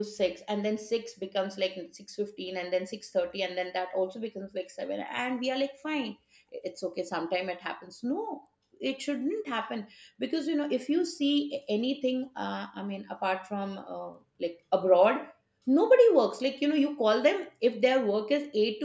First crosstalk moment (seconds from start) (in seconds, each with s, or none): none